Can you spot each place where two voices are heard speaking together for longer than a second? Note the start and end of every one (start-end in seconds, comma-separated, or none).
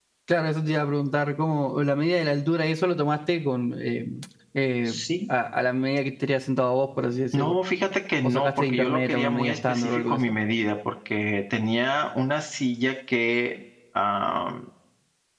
8.2-10.4